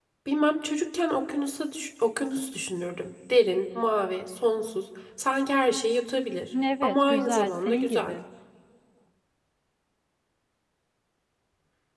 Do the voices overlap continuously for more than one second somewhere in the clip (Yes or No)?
Yes